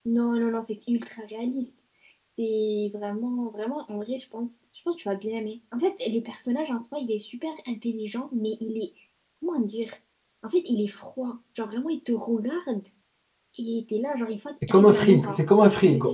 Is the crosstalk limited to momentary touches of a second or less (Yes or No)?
No